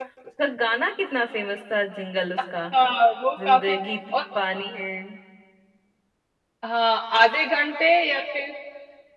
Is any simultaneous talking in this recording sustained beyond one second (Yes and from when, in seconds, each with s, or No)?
No